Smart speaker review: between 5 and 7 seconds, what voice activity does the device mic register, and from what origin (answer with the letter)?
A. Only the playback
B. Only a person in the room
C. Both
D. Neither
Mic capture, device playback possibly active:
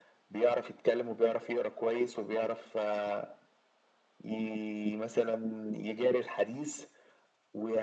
A